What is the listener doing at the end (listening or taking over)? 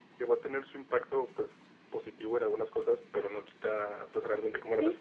taking over